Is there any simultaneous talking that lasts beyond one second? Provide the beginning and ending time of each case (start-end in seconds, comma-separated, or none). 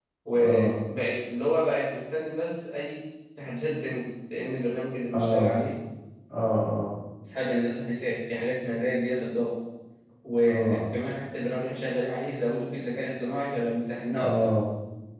none